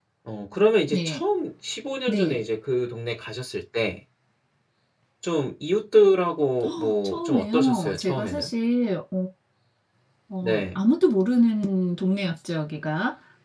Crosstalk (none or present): present